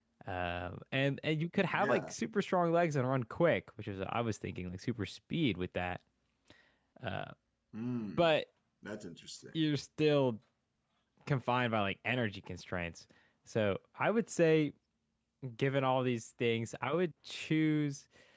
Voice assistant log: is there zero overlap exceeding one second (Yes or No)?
Yes